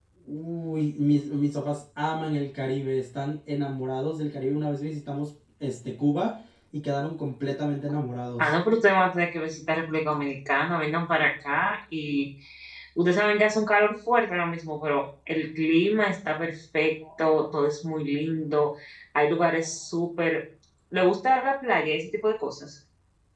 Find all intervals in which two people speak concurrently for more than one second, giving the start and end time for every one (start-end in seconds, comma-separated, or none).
none